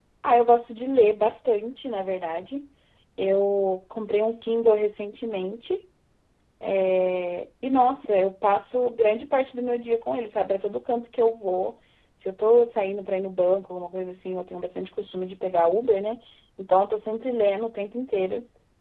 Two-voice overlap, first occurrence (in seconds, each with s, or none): none